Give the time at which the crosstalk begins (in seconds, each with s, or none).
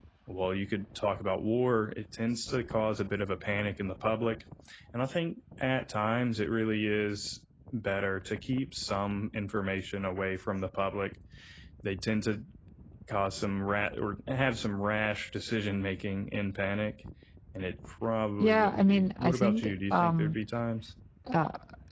18.4 s